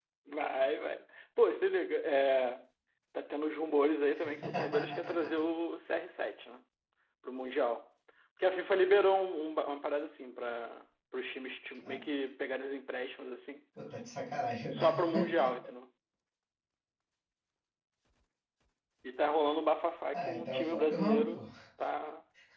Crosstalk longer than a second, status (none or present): present